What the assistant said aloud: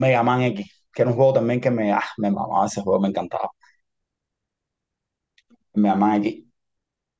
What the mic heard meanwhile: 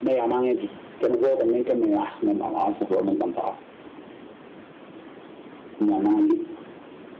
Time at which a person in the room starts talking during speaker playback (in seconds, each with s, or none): none